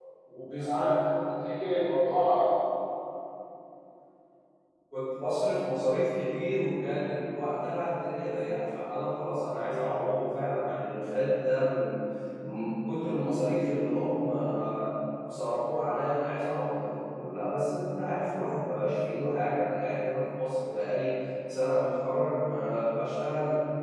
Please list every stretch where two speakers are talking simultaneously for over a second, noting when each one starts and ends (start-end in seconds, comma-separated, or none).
none